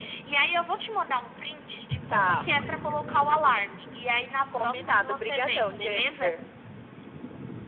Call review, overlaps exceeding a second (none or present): present